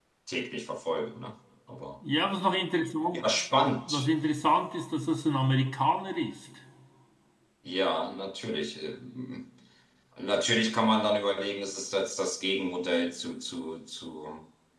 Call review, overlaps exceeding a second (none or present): none